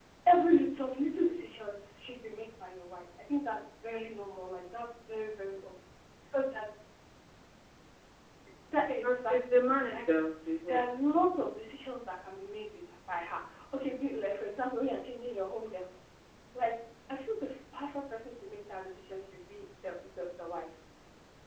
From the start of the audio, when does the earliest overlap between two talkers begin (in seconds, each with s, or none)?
8.8 s